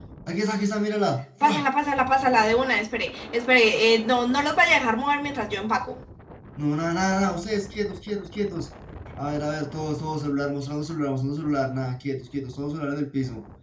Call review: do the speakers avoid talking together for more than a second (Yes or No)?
Yes